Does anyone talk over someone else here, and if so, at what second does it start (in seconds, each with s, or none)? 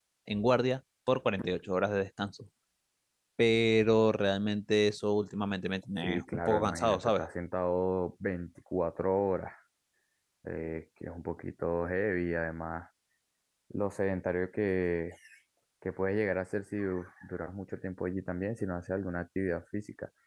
6.0 s